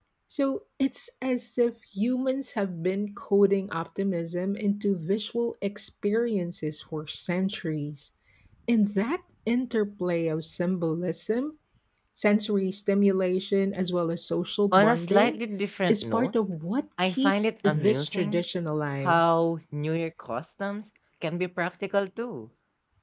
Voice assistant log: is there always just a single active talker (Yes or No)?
No